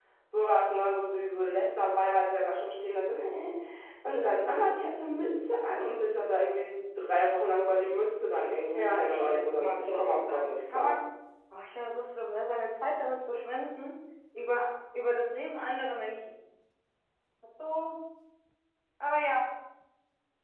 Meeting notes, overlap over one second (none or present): present